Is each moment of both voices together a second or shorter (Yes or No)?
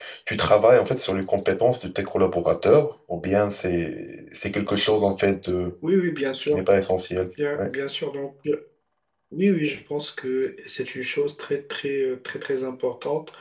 Yes